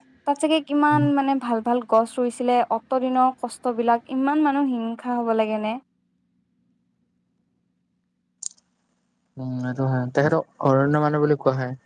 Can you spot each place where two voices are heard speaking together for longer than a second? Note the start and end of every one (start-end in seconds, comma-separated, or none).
none